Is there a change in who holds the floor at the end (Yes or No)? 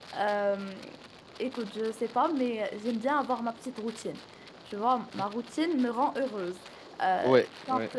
No